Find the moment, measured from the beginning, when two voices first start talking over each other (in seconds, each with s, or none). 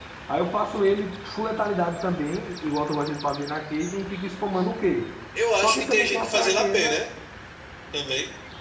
5.6 s